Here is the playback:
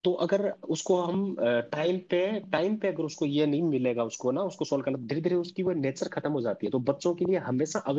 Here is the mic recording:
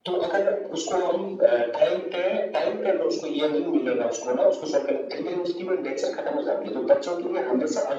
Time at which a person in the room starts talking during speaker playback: none

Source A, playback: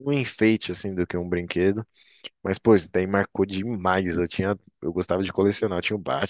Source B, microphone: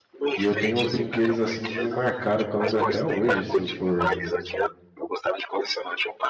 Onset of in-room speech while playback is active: 0 s

